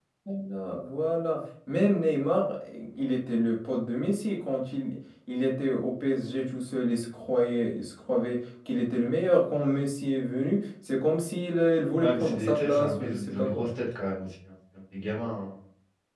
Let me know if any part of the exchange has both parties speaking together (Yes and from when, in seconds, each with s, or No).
Yes, from 12.0 s